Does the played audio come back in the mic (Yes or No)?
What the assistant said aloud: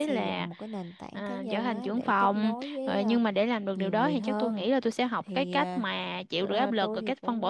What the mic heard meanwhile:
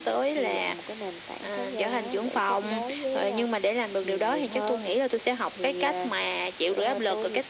Yes